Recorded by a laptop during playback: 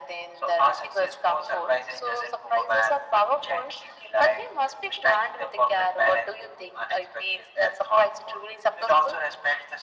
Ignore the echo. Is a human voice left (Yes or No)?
No